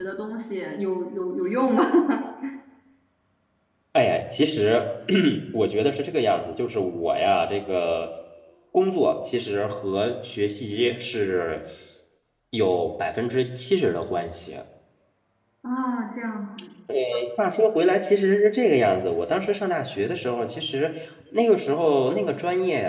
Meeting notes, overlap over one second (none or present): none